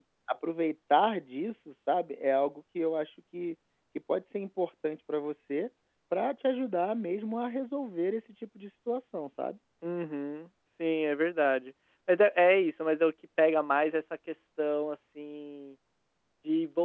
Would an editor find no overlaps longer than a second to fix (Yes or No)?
Yes